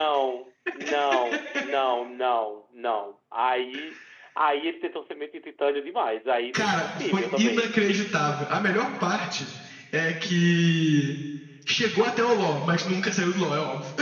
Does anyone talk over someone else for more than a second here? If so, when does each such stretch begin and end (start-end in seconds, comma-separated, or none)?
6.5-7.7